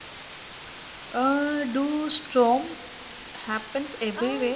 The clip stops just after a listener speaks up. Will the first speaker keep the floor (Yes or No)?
No